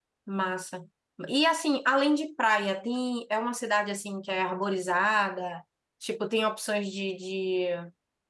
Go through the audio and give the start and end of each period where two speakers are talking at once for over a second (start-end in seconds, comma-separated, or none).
none